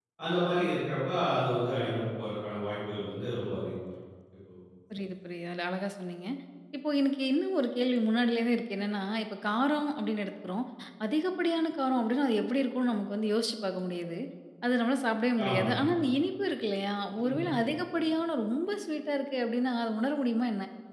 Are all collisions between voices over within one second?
Yes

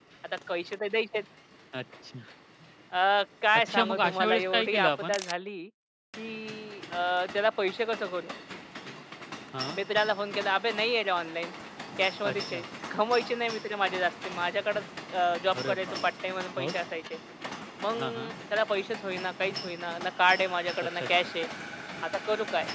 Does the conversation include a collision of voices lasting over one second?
Yes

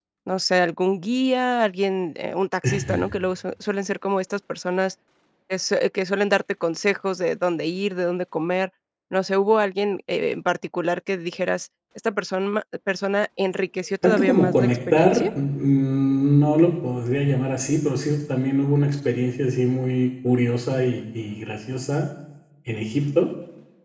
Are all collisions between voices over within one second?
No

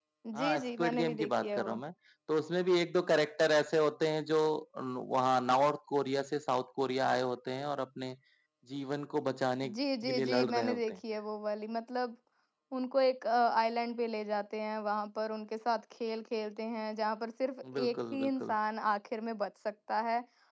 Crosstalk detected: Yes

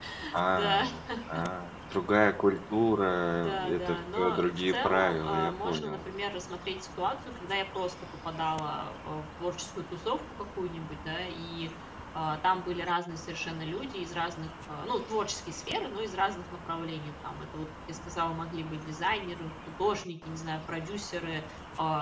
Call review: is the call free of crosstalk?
No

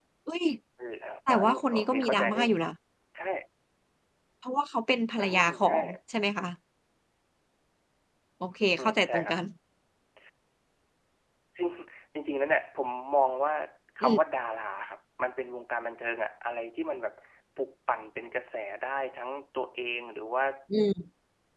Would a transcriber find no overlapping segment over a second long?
No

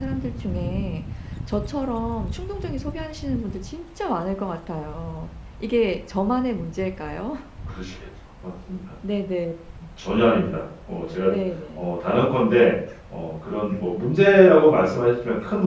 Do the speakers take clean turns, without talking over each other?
Yes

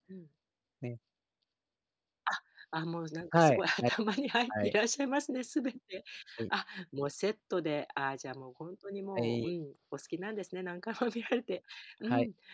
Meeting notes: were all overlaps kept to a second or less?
Yes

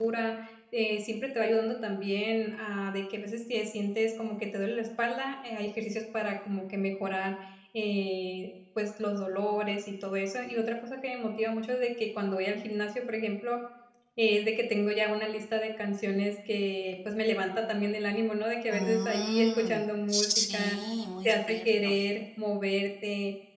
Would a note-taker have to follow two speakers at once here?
Yes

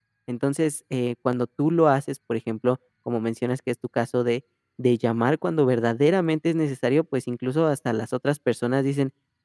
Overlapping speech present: No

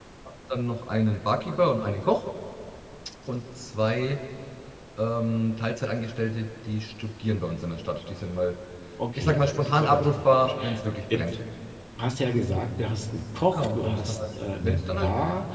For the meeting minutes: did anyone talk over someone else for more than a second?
Yes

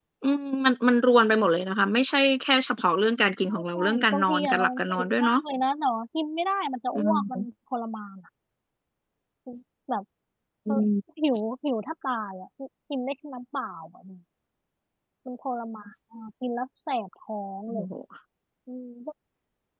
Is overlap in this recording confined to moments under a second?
No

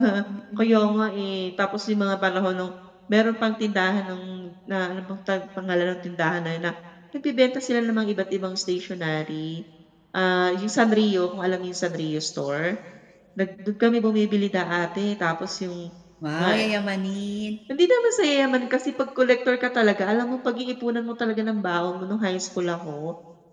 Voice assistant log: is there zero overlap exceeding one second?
Yes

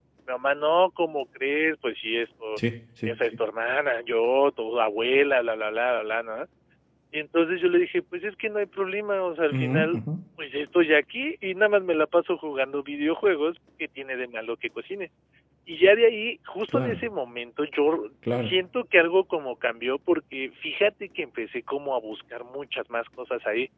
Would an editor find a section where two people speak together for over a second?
No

